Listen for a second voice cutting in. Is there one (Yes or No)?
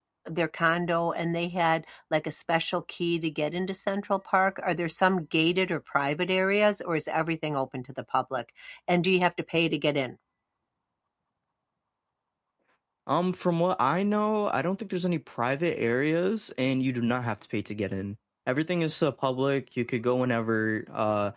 No